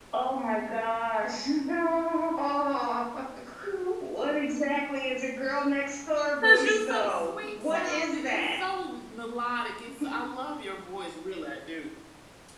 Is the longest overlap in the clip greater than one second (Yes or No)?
Yes